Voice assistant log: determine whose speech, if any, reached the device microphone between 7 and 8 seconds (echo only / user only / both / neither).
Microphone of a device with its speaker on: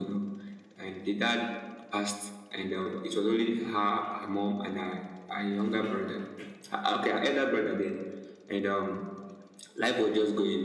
echo only